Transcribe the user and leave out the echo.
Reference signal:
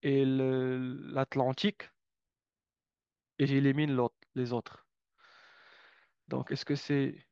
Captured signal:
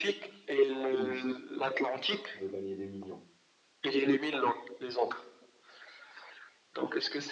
Le suspense. Tu veux gagner des millions.

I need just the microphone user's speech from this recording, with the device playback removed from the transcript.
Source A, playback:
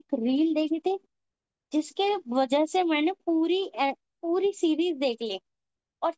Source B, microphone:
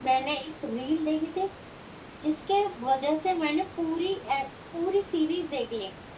none

